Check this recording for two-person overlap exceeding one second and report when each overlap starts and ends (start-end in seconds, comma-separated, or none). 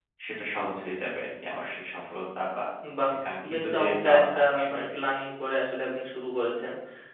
3.5-4.8